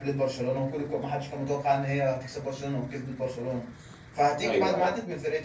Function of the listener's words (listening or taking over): listening